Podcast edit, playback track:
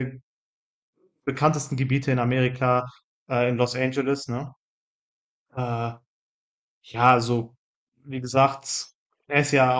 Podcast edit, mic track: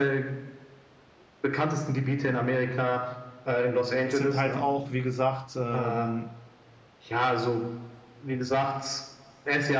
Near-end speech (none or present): present